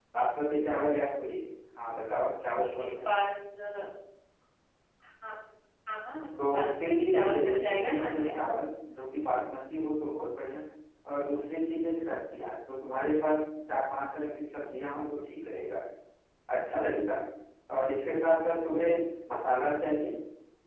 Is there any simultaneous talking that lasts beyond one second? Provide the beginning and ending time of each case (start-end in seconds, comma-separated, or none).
6.4-8.3